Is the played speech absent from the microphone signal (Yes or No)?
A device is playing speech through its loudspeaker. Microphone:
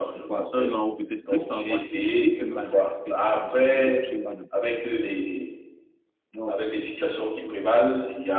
No